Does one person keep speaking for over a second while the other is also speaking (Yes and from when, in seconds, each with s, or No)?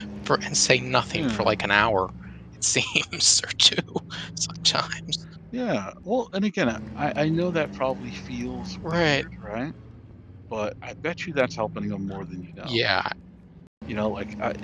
No